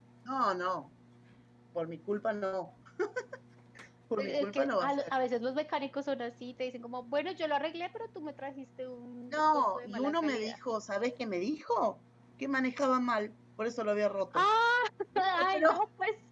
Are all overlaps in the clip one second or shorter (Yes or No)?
No